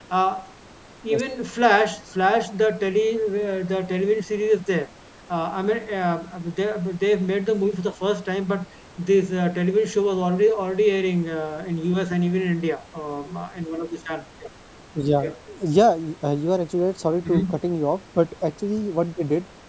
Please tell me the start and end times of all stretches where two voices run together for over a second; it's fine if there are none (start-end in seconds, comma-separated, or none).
none